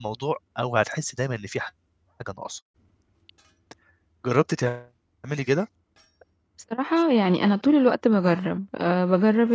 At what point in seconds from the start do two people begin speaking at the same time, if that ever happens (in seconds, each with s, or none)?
none